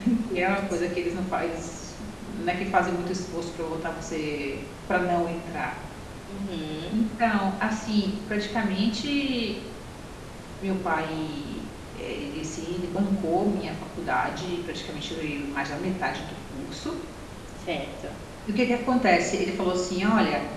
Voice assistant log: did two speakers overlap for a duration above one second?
No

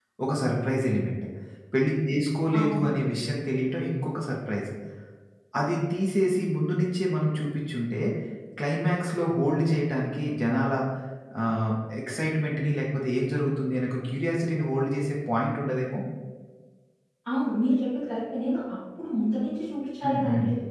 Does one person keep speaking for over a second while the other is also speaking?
No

